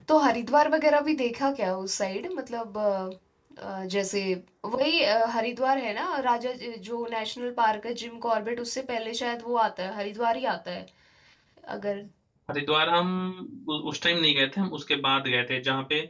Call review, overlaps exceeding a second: none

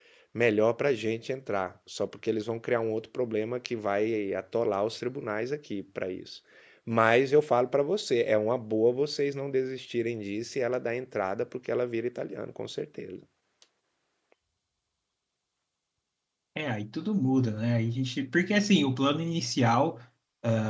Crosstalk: none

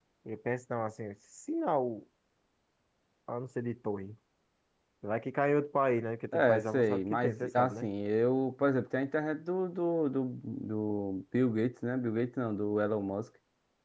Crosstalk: present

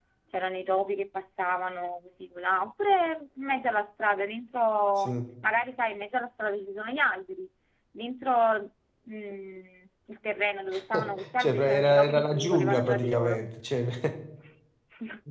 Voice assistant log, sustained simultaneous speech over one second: present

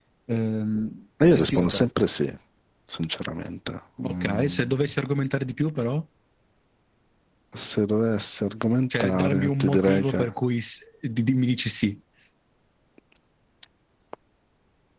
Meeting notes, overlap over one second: present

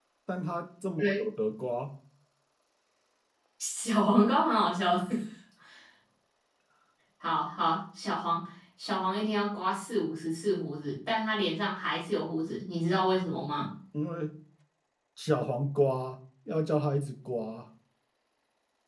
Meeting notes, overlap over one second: none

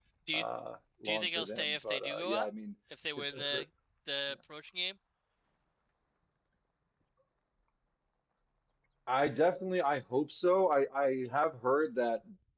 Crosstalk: present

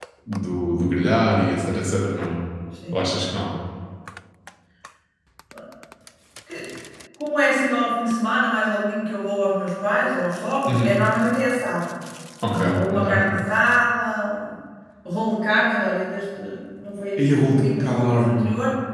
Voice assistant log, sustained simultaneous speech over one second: present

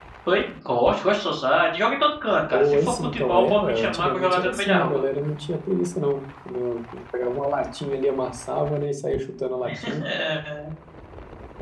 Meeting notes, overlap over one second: present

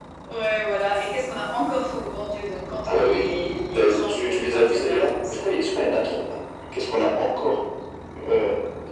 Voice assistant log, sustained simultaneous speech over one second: present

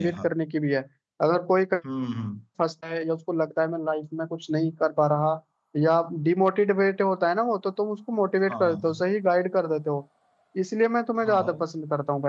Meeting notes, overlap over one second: none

